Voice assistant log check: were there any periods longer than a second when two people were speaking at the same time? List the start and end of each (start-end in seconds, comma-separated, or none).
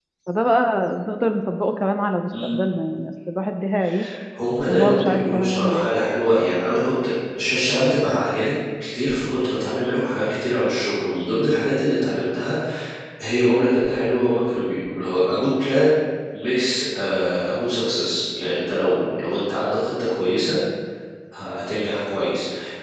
4.7-5.9